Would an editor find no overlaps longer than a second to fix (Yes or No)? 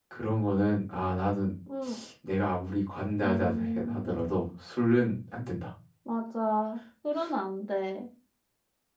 No